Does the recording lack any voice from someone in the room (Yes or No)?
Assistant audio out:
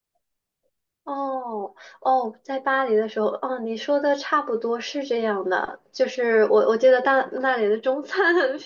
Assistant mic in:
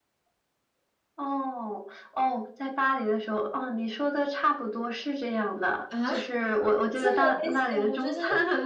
No